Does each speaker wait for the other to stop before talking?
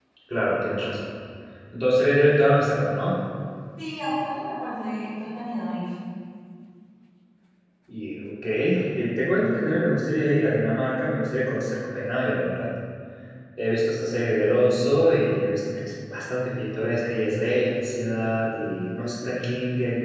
Yes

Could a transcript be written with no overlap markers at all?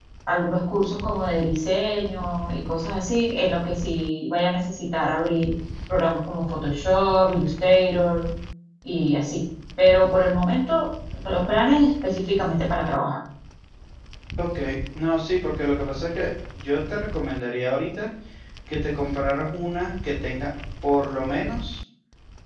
Yes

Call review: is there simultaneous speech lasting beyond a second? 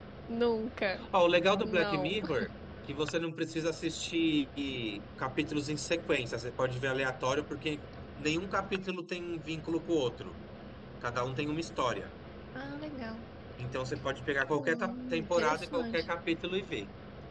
Yes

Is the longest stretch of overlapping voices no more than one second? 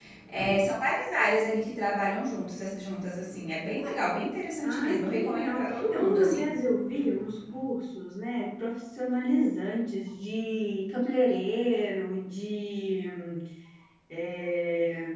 No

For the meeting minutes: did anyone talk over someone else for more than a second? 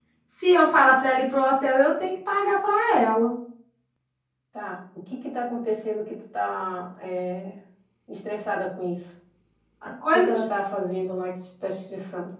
No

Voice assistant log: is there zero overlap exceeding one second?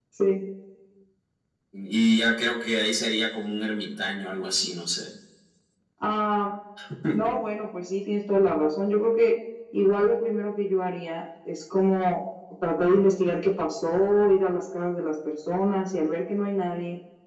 Yes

